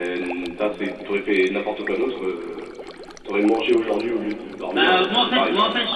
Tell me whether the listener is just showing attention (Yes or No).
No